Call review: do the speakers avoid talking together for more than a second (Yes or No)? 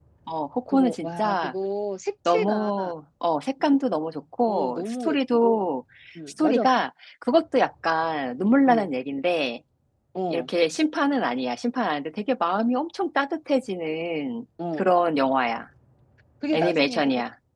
No